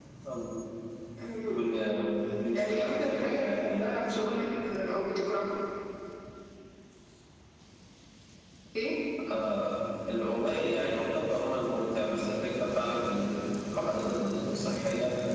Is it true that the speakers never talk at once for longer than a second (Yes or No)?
No